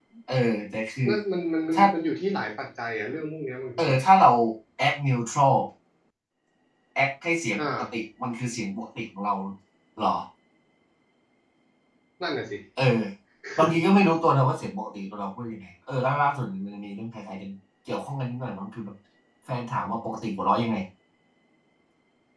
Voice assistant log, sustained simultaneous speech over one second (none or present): none